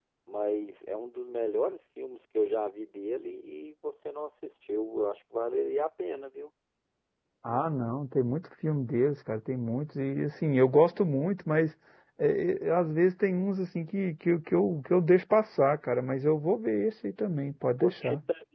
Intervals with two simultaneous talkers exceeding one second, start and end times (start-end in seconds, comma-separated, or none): none